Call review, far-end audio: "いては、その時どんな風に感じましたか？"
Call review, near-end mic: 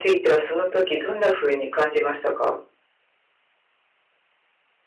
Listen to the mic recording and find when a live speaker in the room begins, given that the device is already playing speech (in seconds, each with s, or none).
none